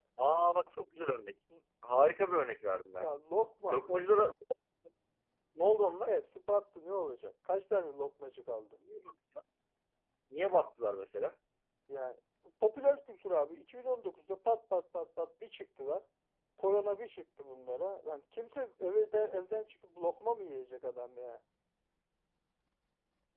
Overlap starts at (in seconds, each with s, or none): none